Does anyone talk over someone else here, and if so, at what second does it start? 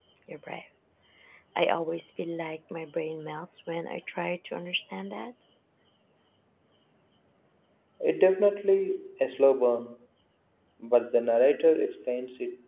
none

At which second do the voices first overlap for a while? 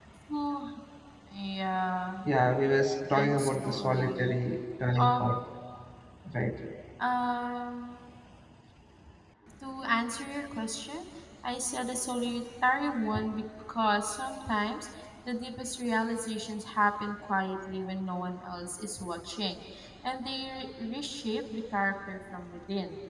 3.1 s

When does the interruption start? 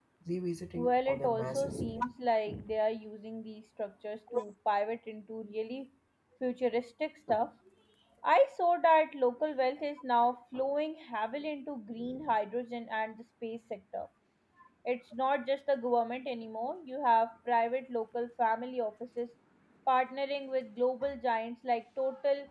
0.8 s

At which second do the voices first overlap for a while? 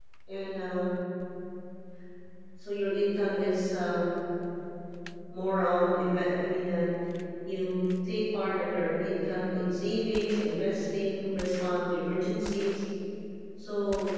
none

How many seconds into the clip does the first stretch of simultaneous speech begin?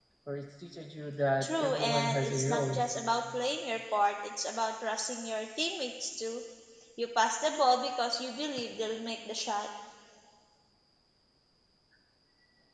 1.4 s

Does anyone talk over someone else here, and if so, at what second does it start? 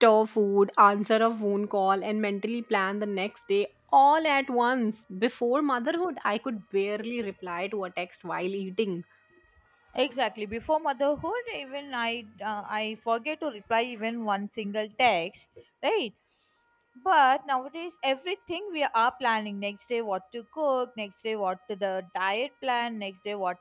none

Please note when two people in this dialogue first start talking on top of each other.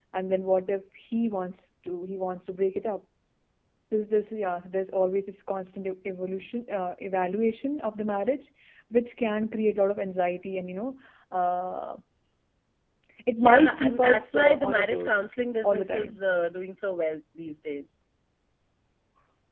13.4 s

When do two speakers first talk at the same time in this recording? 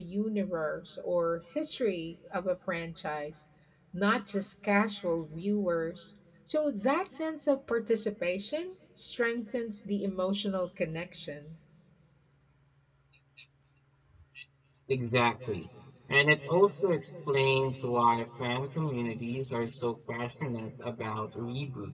none

